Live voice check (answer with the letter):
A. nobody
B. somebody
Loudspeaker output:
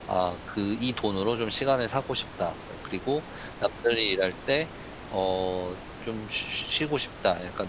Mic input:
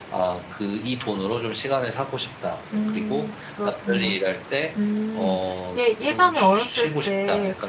B